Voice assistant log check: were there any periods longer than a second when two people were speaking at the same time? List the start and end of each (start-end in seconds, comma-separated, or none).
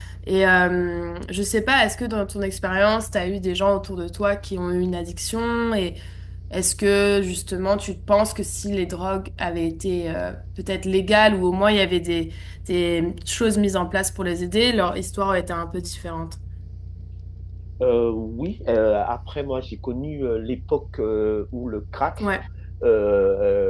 none